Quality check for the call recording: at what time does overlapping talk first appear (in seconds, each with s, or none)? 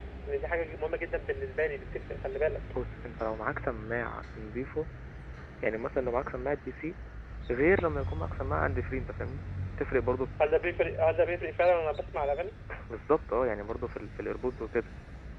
none